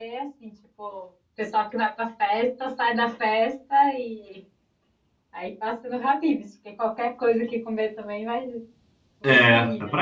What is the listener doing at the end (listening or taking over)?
taking over